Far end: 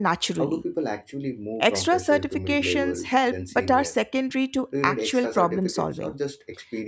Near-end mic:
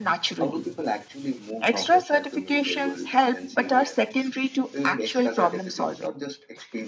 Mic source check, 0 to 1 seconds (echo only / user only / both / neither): echo only